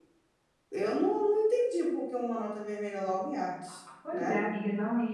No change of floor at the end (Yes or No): No